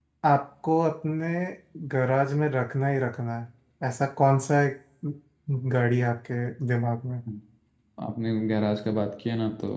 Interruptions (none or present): none